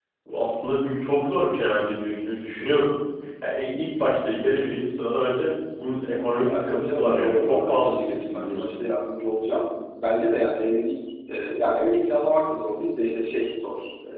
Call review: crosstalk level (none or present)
present